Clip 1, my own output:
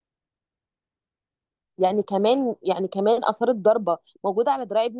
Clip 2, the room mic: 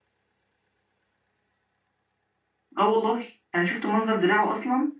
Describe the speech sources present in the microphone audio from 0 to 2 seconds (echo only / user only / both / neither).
neither